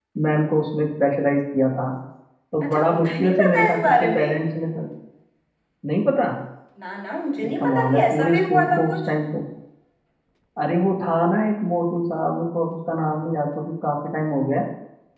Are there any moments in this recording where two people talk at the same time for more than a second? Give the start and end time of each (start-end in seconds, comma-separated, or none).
2.6-4.3, 7.4-9.0